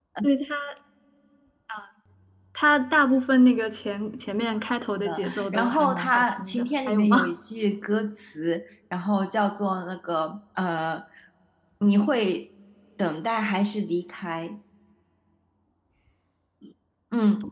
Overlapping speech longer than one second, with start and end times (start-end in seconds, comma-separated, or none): 5.0-7.3